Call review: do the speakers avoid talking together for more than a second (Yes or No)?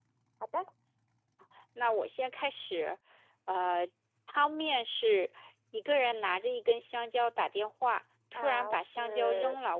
No